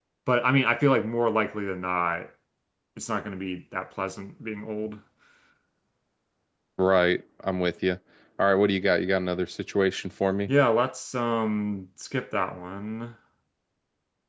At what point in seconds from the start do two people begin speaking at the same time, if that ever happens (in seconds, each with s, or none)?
none